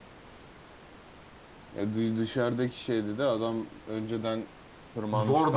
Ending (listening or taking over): taking over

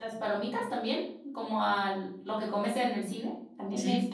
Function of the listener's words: taking over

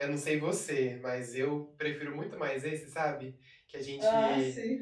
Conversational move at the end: listening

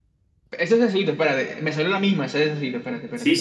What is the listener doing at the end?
taking over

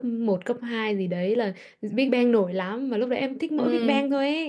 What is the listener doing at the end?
listening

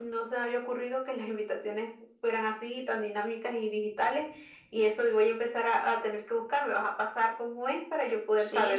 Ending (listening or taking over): taking over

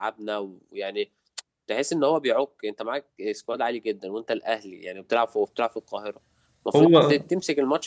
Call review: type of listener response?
listening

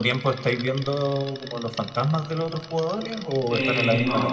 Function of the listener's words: taking over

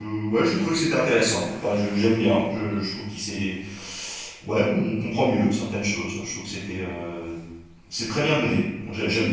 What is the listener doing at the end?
taking over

